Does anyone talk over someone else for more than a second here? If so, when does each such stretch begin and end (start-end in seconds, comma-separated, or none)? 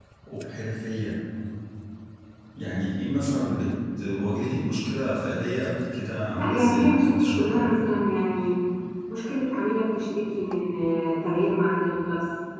6.3-7.7